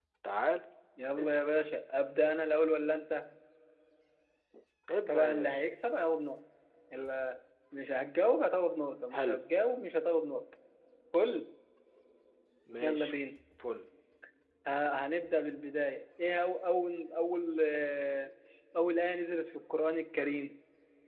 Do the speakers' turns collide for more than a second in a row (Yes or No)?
No